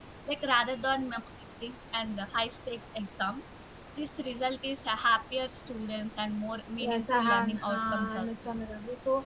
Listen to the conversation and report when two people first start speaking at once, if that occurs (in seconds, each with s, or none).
6.8 s